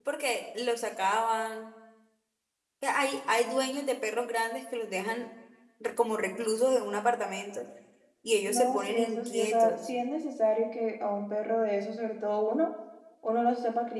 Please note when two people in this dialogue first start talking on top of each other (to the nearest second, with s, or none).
8 s